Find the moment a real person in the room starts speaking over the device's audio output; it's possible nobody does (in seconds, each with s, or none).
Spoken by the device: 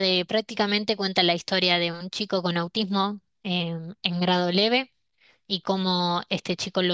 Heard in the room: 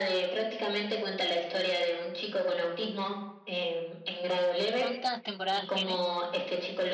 4.7 s